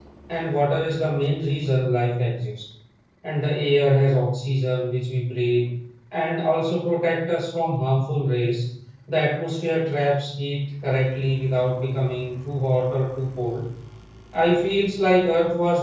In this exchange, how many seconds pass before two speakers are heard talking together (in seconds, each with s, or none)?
none